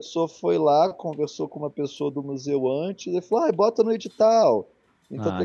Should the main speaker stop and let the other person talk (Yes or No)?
No